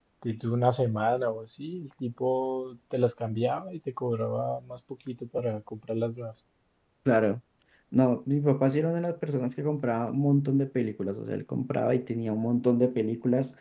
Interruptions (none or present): none